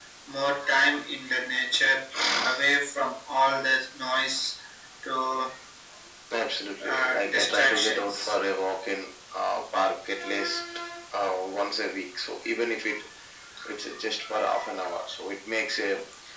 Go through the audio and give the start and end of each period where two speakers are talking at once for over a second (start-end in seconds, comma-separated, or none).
6.8-8.3